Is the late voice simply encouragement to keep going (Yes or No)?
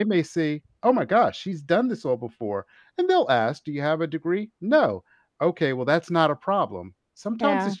Yes